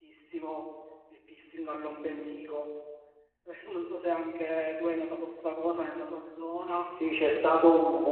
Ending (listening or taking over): taking over